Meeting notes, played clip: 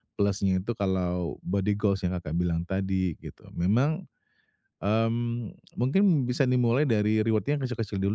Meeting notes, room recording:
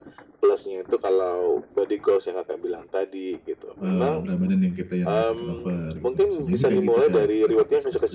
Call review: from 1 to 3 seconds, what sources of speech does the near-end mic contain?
echo only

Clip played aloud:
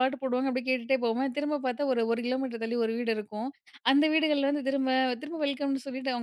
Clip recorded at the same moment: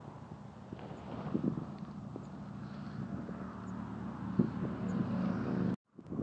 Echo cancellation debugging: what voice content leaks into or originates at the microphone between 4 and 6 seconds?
neither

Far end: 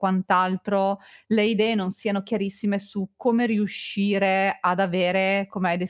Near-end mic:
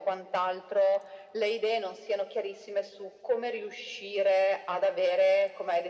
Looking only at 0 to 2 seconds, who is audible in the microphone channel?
echo only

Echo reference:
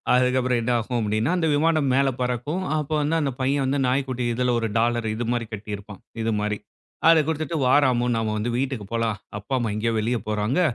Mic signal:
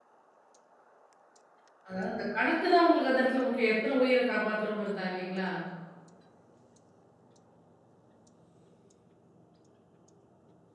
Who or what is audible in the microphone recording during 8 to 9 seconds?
neither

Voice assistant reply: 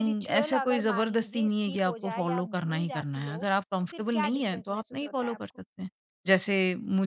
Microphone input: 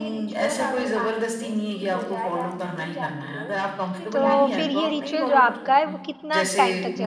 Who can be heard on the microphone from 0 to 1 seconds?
echo only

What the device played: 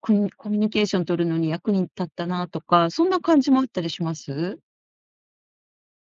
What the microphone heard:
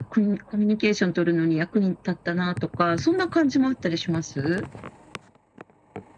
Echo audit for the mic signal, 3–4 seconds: echo only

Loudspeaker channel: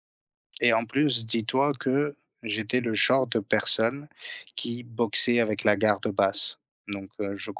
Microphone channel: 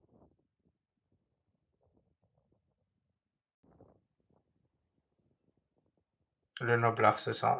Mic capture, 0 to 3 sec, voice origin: neither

